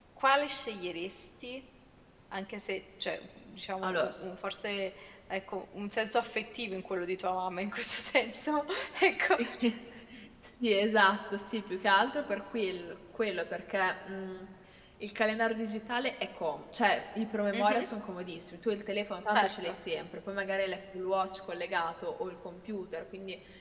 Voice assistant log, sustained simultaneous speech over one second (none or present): none